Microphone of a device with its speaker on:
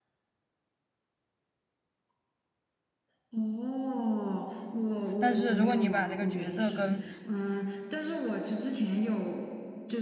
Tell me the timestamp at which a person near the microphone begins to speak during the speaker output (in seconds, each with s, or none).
5.2 s